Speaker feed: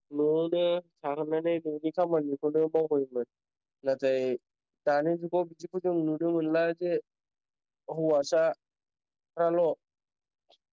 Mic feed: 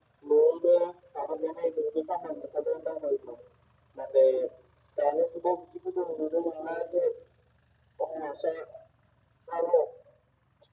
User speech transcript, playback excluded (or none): none